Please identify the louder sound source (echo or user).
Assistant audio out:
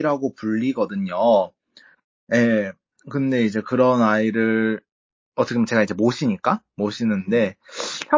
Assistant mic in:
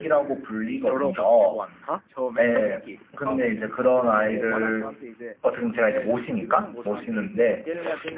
echo